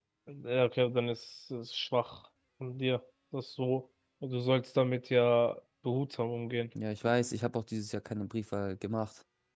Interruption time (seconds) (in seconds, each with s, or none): none